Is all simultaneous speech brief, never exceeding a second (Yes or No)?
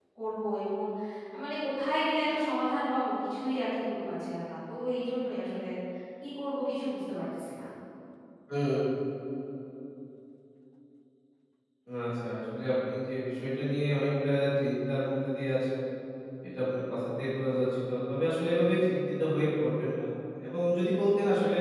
Yes